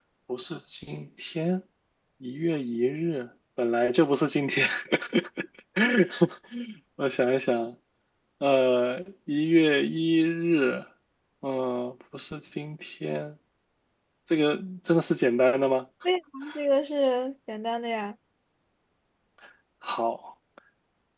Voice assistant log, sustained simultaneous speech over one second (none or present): none